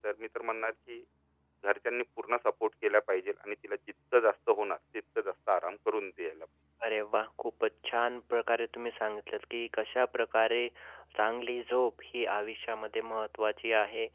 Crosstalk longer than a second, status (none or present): none